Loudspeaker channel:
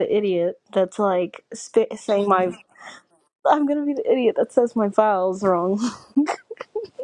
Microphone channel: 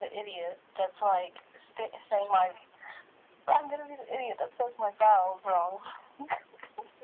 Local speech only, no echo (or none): none